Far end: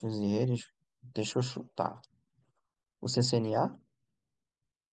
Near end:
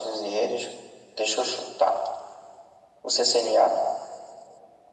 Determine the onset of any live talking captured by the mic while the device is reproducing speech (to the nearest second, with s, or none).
none